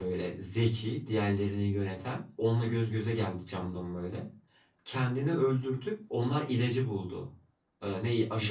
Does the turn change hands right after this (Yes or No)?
No